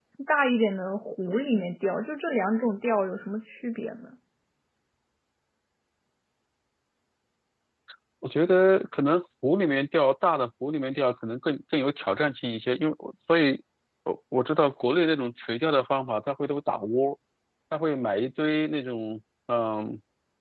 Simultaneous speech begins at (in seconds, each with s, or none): none